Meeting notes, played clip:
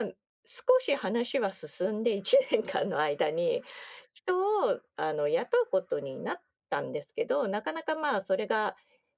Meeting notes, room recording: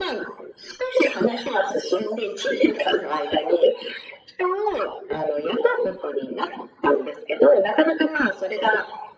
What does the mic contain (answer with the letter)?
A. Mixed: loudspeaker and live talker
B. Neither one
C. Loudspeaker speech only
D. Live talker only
C